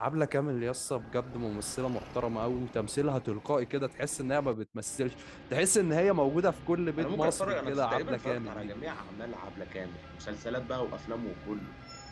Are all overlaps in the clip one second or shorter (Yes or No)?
No